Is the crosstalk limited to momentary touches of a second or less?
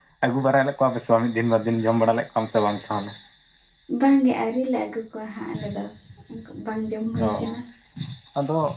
Yes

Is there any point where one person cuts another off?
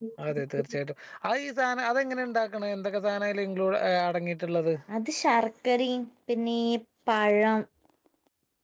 No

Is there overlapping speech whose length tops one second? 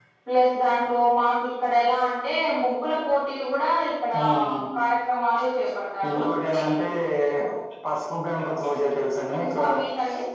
No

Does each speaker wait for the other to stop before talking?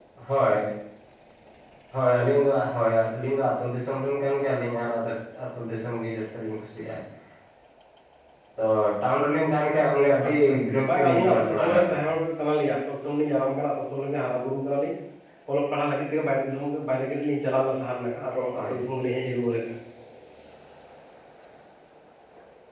No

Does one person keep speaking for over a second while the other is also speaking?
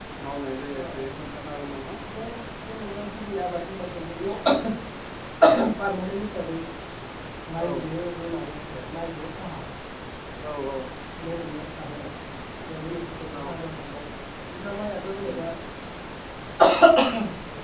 No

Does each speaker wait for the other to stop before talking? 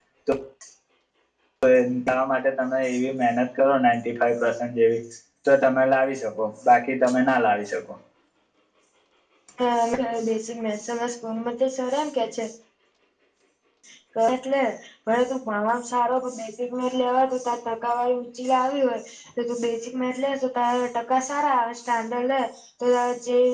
Yes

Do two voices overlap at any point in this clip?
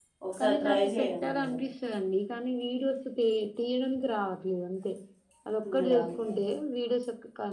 Yes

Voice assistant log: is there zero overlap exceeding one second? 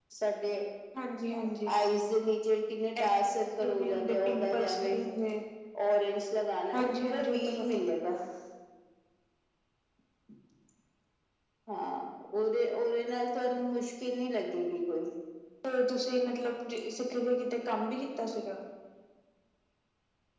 No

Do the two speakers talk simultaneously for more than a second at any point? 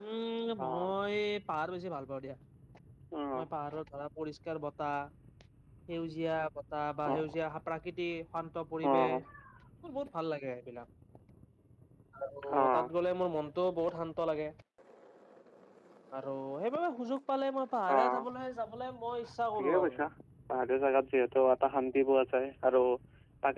No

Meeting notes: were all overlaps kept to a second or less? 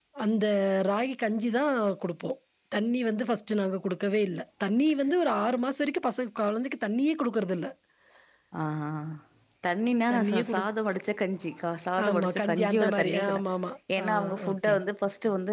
No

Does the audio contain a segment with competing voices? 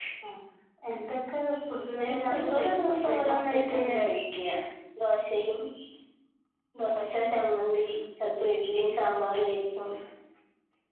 Yes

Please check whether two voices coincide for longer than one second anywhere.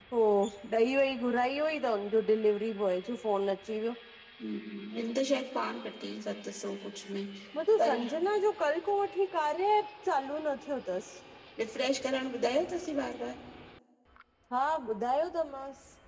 No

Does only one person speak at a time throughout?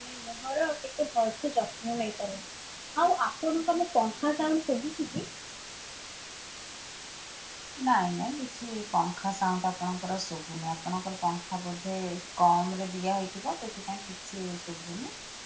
Yes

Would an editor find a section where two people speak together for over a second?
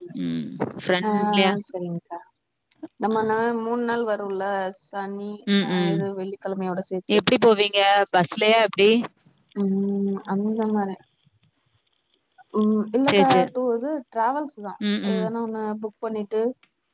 No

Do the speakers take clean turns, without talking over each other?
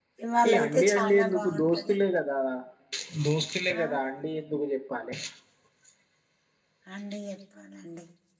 No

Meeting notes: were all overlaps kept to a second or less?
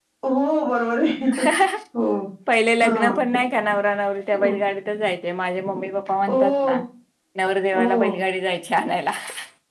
Yes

